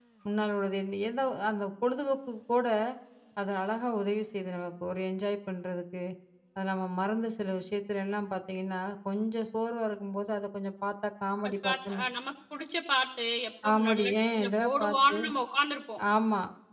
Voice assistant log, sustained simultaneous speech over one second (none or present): present